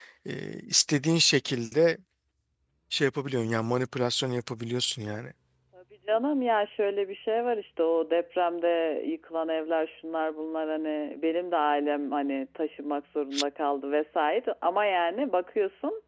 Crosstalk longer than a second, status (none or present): none